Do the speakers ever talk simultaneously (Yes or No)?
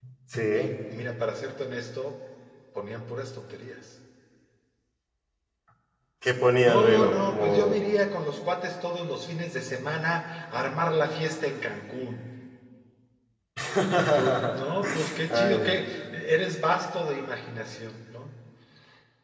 Yes